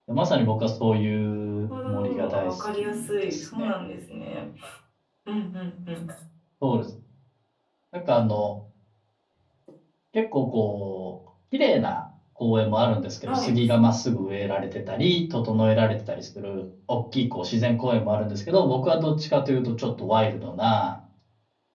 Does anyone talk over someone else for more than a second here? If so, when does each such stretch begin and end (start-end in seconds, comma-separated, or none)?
1.8-3.7